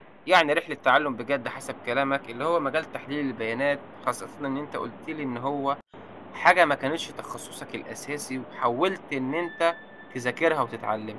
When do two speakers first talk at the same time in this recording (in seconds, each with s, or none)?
none